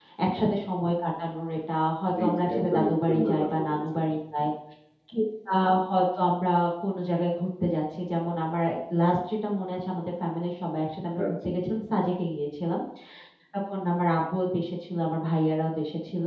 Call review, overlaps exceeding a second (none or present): present